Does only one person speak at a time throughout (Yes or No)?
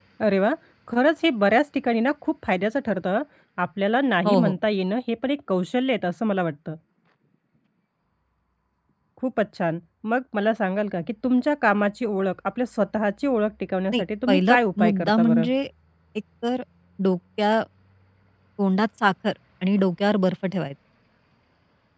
No